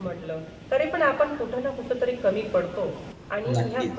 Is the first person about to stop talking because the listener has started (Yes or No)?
No